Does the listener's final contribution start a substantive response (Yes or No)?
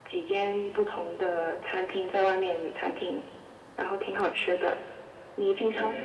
Yes